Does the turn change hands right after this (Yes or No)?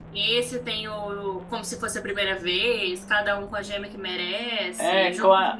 Yes